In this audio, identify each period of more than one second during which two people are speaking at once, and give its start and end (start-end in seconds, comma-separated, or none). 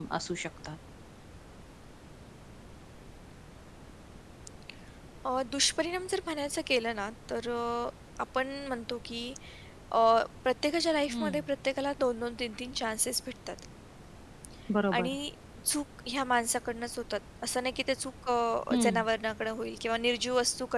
none